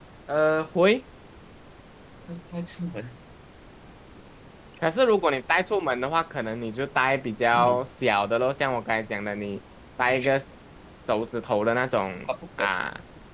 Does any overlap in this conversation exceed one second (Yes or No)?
No